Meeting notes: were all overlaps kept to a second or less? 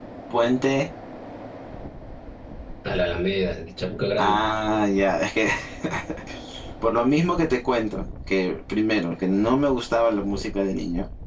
Yes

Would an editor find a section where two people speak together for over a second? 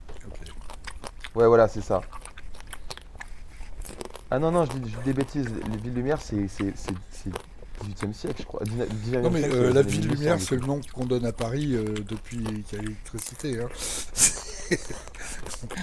Yes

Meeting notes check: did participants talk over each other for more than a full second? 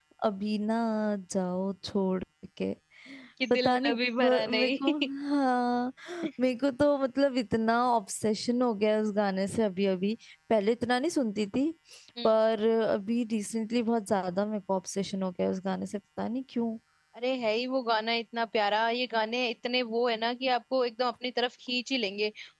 Yes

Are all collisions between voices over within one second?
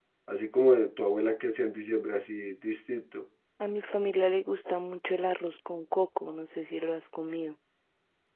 Yes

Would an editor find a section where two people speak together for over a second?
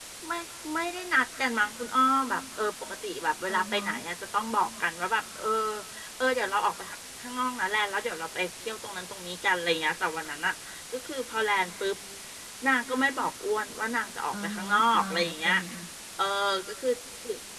Yes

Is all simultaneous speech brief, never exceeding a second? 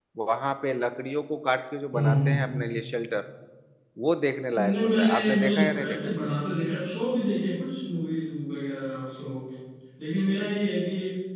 No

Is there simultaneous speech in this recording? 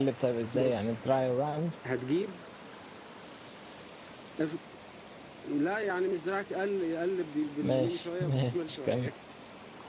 Yes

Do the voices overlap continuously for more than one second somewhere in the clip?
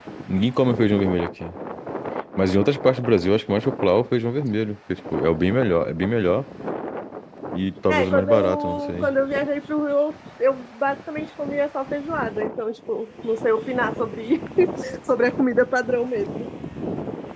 Yes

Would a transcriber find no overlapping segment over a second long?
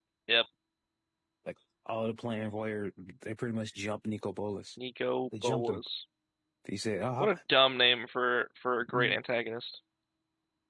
Yes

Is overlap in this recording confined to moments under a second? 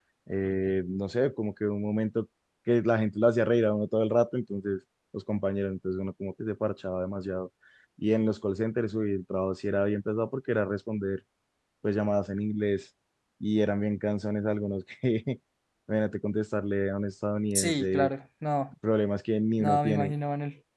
Yes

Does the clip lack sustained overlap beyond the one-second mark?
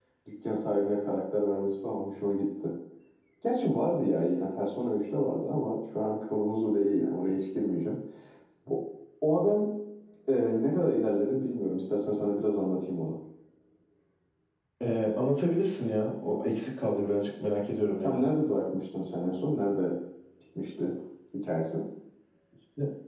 Yes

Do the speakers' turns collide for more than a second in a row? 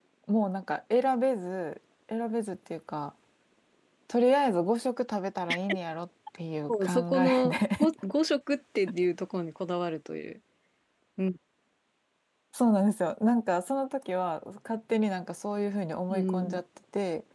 Yes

